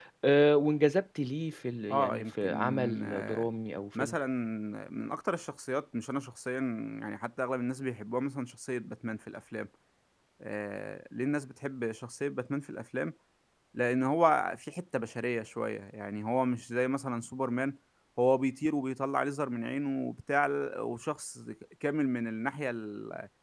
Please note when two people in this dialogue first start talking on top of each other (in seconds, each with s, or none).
1.9 s